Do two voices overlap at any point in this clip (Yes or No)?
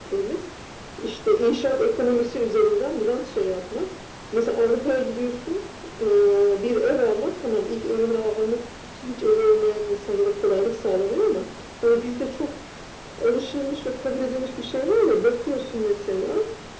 No